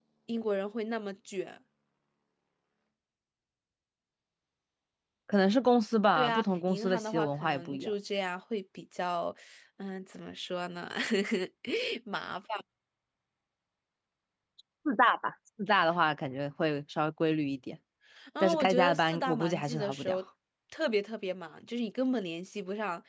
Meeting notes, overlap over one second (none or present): present